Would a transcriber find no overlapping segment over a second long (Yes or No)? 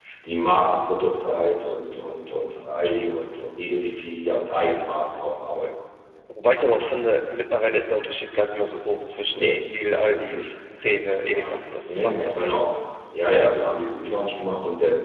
No